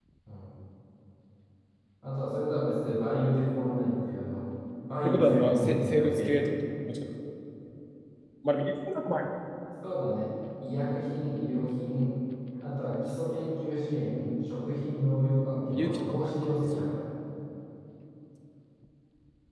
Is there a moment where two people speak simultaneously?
Yes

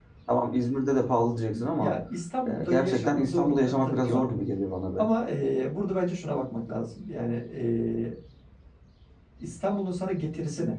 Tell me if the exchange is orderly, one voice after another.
No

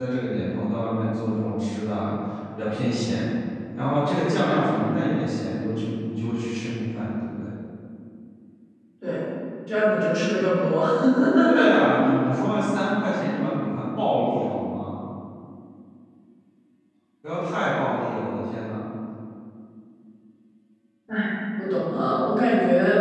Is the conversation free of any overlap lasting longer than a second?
Yes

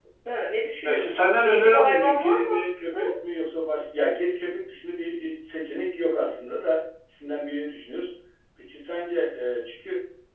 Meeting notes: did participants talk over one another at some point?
Yes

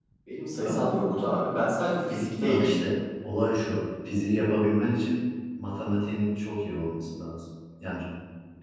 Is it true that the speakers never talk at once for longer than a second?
Yes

